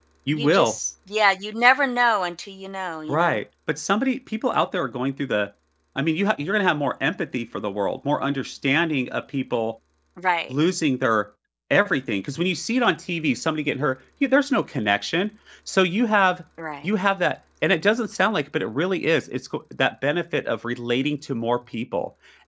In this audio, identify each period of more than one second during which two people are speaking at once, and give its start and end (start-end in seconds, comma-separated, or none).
none